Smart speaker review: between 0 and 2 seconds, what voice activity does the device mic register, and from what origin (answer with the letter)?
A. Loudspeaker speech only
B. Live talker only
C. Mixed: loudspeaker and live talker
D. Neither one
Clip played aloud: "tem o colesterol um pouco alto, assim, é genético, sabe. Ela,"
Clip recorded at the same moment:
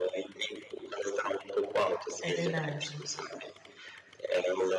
A